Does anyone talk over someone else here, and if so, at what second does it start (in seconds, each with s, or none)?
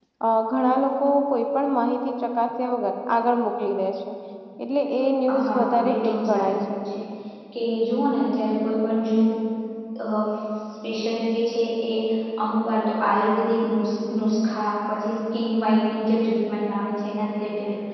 5.5 s